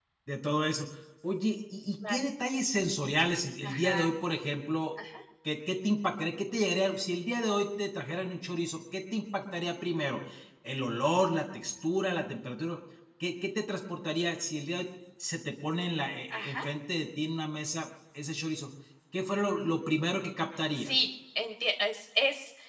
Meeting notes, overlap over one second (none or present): none